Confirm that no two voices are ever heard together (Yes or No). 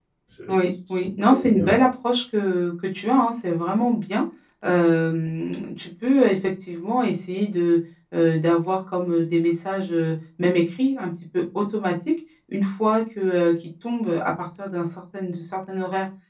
No